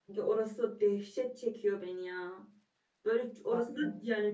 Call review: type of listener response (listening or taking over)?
listening